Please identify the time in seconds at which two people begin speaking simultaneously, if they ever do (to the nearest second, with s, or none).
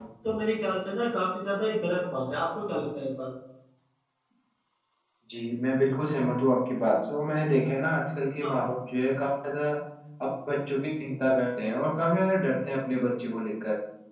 none